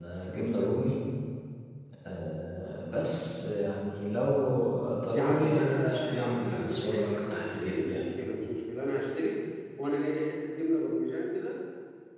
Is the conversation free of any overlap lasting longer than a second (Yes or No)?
No